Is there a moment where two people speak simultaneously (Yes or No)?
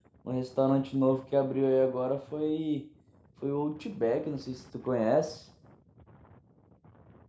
No